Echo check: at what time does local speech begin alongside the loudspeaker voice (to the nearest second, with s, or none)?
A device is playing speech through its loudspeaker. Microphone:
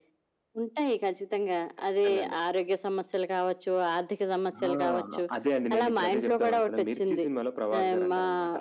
none